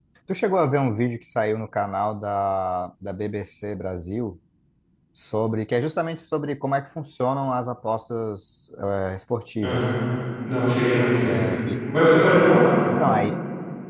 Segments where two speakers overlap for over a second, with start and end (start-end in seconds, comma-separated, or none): none